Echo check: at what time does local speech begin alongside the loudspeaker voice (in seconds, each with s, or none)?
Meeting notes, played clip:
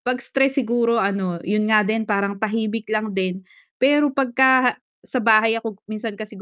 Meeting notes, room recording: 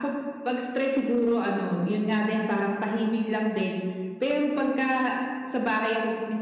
none